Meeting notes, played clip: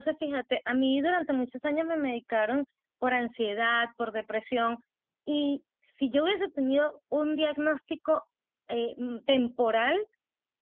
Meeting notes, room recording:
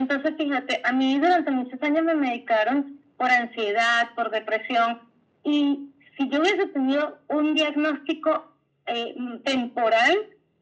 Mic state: echo only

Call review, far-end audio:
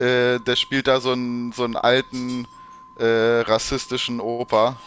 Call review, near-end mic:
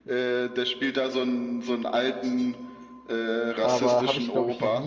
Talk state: both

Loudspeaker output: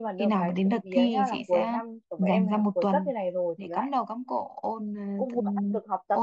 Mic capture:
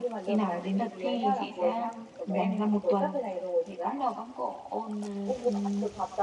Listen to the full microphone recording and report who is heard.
echo only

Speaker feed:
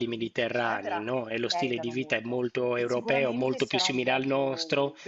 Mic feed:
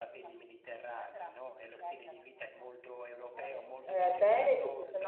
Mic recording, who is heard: both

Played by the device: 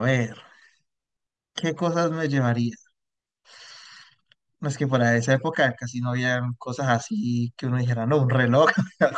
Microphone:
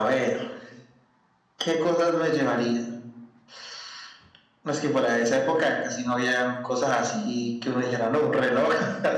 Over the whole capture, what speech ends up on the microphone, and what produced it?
echo only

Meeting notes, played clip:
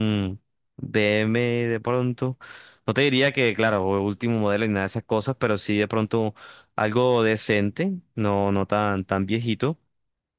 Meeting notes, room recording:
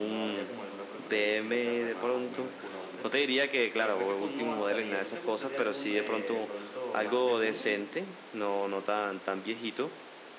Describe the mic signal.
both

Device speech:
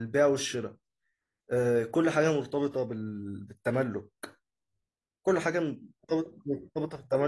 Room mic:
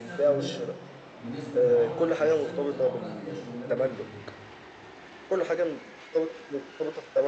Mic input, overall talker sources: both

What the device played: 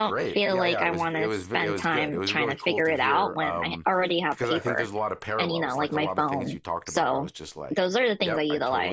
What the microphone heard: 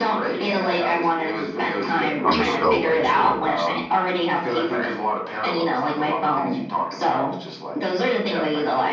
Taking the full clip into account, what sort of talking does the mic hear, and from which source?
both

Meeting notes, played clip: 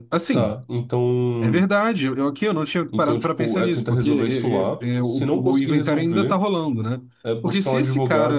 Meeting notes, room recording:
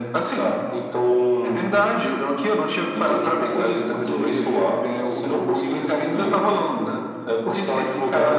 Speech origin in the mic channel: echo only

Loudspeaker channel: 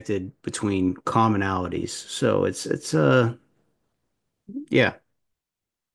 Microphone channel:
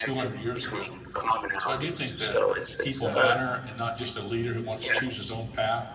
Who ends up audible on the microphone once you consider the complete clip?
both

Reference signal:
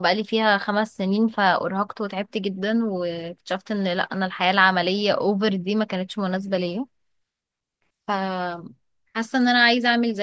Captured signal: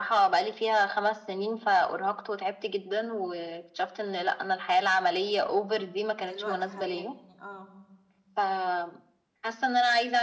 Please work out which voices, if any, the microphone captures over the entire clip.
both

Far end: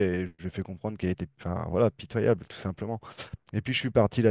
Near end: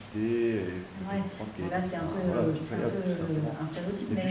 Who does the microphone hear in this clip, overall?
both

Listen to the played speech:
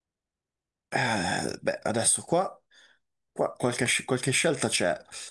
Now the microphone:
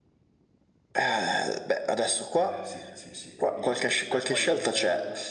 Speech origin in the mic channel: both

